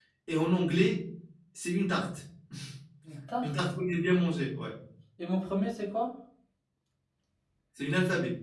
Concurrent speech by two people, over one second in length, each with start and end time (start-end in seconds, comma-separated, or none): none